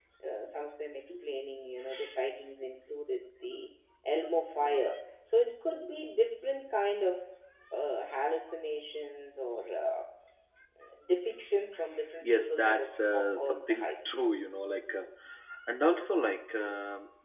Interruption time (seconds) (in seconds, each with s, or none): 12.2 s